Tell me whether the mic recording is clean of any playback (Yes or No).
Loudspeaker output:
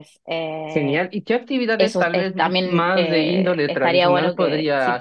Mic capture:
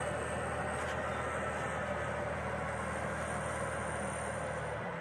Yes